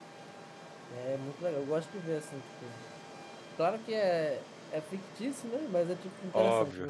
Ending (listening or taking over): listening